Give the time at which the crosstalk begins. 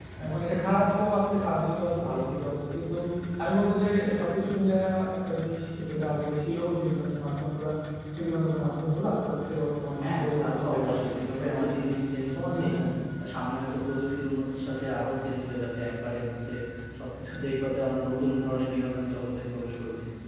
10.0 s

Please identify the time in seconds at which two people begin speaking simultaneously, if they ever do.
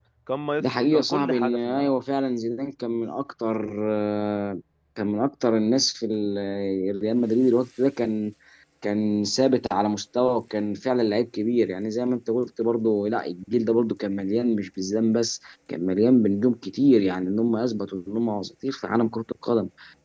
0.6 s

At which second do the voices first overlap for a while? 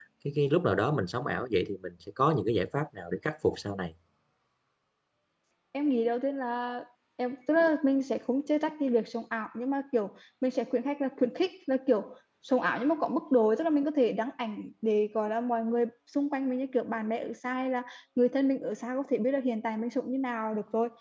none

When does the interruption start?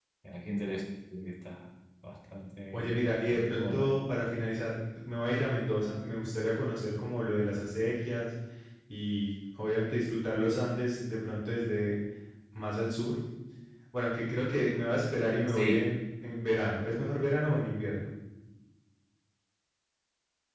2.7 s

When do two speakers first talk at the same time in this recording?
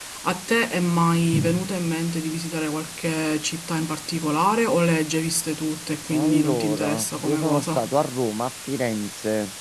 6.1 s

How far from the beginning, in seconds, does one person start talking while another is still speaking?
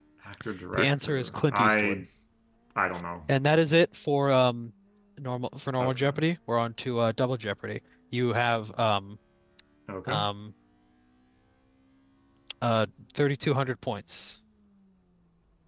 0.7 s

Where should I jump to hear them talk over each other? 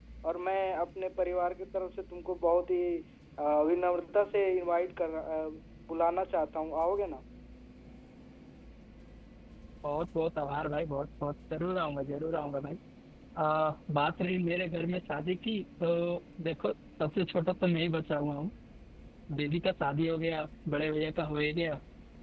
none

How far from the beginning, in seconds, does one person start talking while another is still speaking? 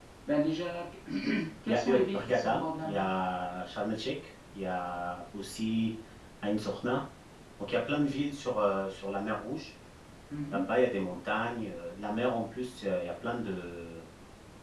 1.7 s

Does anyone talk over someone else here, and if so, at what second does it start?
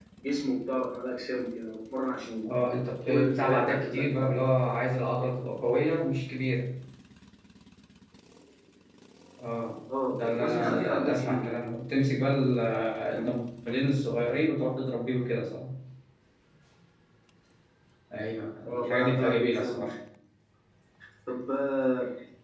3.1 s

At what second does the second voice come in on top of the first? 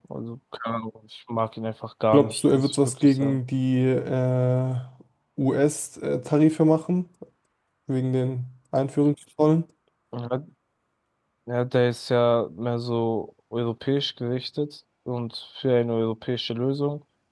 2.1 s

